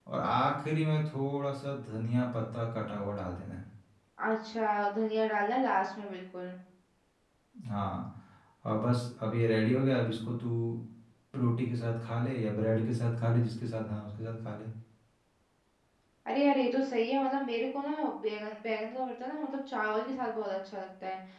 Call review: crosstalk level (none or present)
none